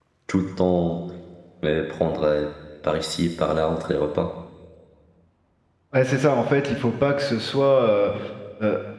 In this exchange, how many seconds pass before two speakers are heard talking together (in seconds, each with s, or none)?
none